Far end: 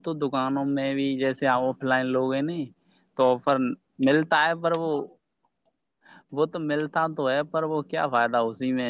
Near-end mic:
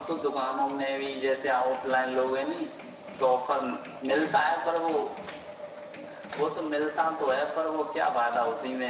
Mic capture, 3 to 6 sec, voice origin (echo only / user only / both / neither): echo only